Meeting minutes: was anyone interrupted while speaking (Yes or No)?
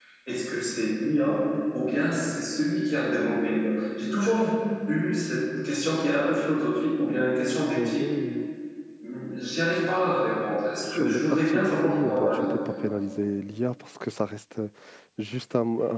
Yes